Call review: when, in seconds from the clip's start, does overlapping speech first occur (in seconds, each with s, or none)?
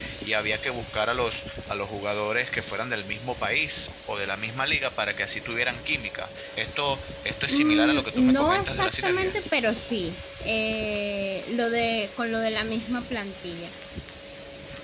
7.5 s